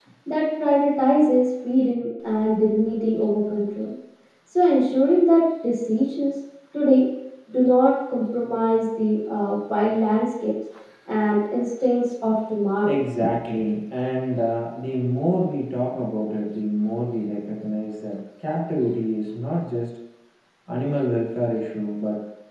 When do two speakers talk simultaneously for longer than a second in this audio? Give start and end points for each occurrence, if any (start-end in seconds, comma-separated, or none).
none